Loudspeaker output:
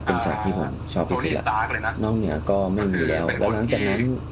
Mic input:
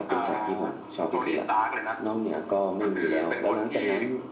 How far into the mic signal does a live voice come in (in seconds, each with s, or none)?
none